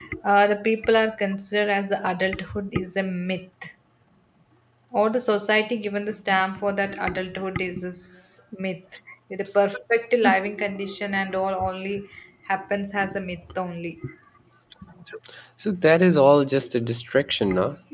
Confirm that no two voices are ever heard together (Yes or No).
Yes